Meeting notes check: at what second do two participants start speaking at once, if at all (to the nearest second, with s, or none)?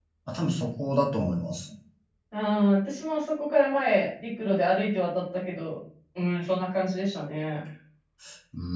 none